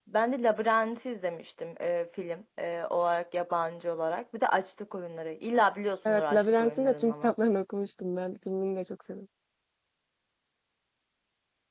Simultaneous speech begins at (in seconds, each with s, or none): 6.0 s